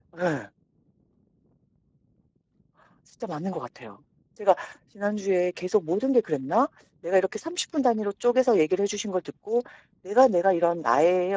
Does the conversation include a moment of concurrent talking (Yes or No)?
No